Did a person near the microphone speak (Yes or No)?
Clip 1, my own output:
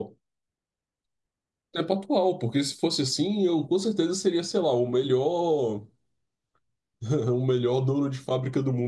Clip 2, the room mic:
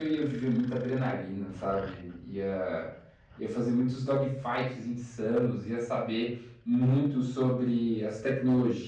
Yes